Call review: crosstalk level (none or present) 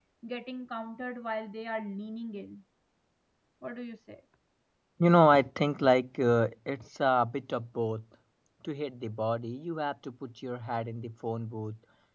none